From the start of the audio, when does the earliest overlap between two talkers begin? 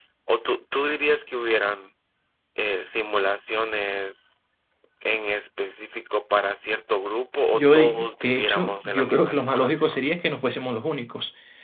7.5 s

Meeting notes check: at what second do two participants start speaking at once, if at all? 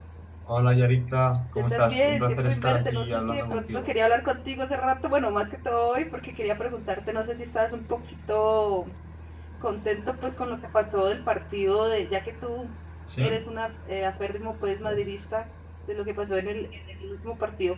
1.7 s

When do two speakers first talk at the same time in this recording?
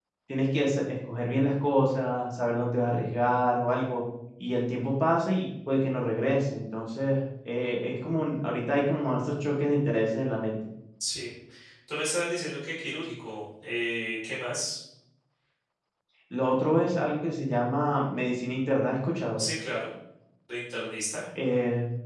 none

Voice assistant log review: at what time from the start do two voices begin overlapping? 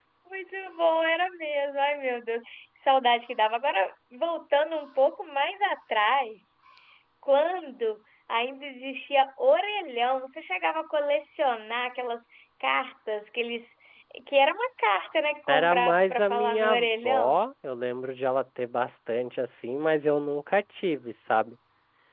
15.5 s

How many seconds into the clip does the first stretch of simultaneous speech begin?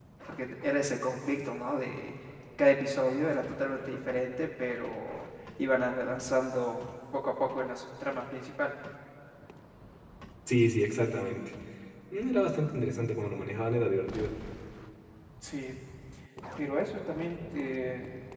none

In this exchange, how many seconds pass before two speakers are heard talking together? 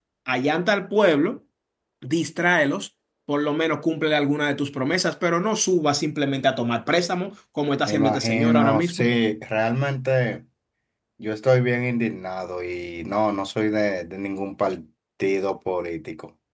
7.9 s

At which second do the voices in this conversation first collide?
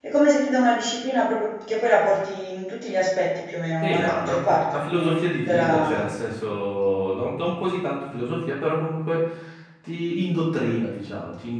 3.8 s

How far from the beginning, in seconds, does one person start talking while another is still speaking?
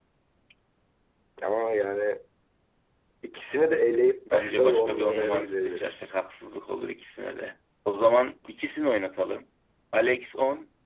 4.2 s

